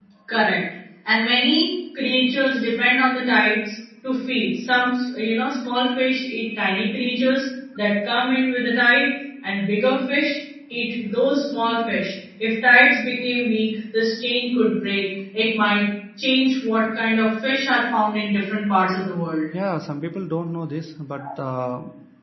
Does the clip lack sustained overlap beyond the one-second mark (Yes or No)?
Yes